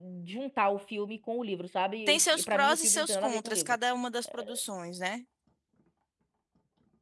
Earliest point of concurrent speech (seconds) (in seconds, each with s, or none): 2.1 s